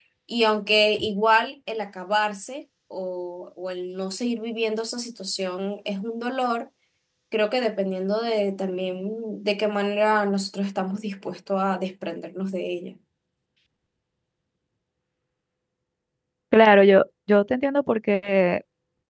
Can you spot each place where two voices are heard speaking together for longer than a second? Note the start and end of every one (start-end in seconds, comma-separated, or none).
none